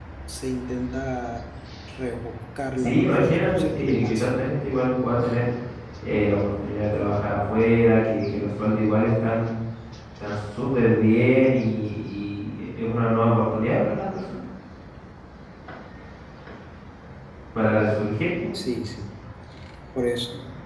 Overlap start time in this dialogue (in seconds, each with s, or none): 2.8 s